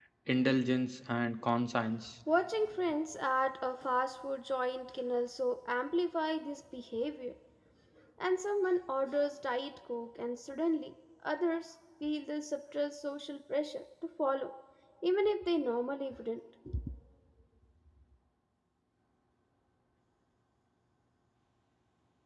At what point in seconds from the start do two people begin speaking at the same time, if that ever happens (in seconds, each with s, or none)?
none